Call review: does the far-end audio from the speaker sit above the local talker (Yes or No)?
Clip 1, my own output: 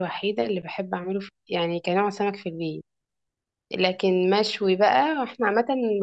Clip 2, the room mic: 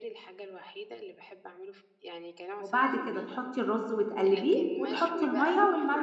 No